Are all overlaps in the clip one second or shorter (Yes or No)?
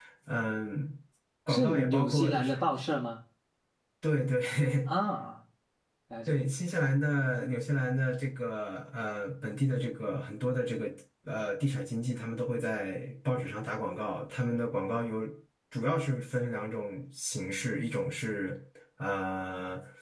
No